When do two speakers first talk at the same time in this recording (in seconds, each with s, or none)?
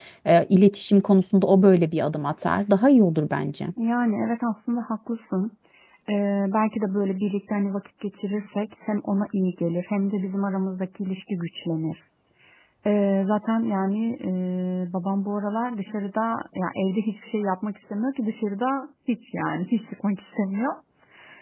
none